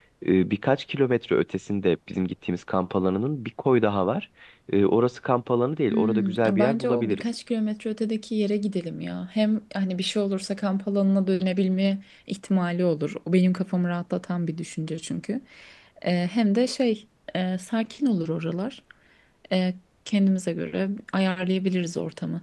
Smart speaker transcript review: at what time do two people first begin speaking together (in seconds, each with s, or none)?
5.9 s